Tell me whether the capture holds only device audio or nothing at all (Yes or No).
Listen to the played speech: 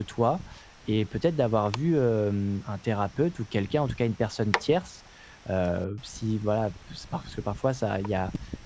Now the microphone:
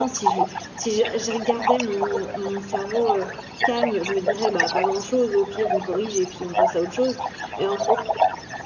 No